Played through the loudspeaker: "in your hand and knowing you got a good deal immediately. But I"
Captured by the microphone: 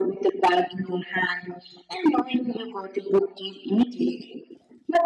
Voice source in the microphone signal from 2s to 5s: echo only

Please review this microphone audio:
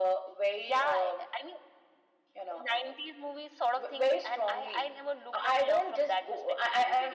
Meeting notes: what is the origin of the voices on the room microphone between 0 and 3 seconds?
echo only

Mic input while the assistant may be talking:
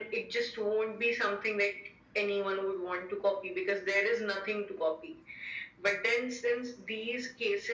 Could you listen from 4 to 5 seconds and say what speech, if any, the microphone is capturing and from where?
echo only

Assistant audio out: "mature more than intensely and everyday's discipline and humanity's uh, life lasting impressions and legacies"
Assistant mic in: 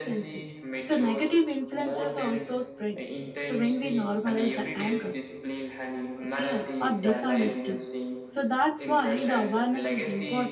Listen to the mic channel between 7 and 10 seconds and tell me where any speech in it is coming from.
both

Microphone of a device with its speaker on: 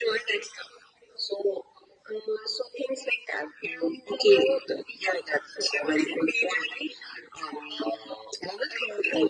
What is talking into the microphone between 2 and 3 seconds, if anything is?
echo only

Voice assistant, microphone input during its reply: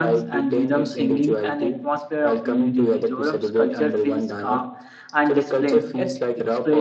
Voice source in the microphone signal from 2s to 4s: both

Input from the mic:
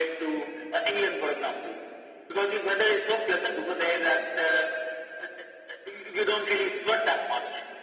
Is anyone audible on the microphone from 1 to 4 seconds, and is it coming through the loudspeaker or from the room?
echo only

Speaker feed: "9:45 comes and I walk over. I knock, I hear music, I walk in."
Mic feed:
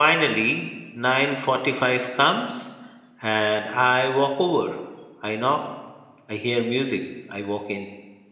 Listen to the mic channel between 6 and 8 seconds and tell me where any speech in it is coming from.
echo only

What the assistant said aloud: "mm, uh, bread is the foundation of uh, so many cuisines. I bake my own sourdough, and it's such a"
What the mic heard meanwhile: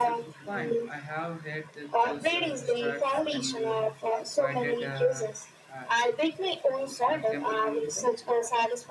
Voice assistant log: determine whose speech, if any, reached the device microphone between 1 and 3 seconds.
both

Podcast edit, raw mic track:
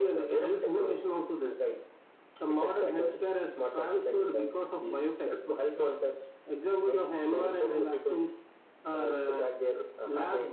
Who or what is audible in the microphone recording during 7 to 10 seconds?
echo only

